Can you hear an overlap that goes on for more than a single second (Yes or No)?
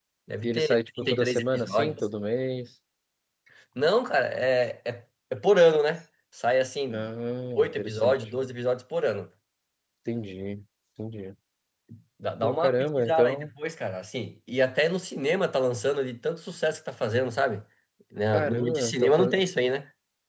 Yes